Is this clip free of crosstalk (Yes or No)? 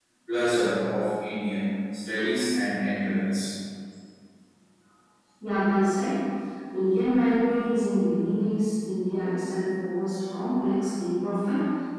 Yes